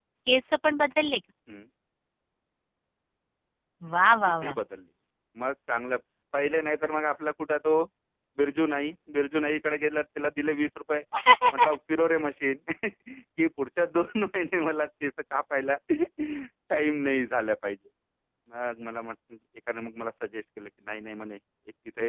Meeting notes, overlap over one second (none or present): none